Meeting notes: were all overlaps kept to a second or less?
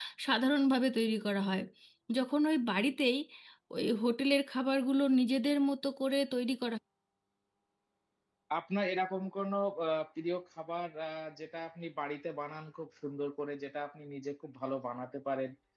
Yes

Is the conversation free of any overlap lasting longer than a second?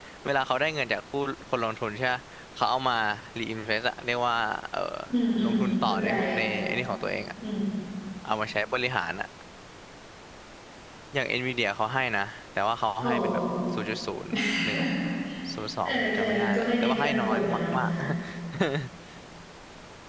No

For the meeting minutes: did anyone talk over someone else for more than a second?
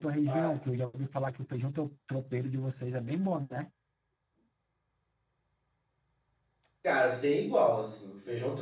No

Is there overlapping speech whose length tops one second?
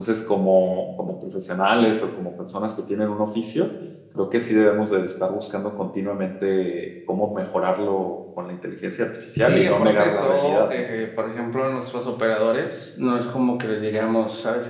Yes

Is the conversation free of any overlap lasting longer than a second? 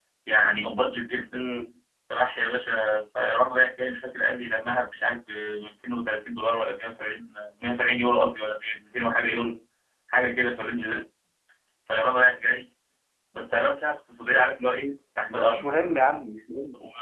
Yes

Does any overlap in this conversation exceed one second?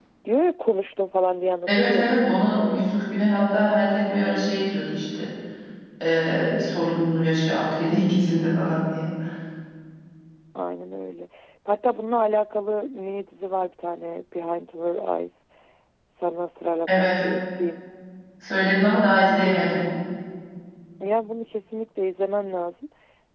Yes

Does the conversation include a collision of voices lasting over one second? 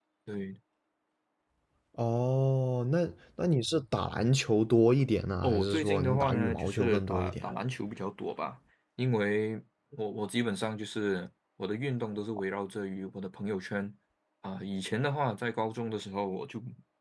Yes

